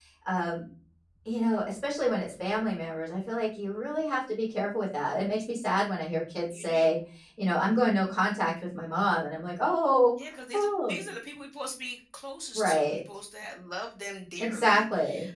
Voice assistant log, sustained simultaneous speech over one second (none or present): none